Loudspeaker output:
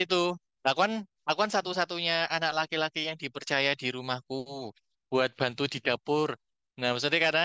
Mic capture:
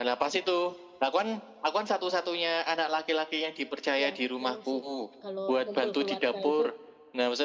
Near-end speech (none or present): present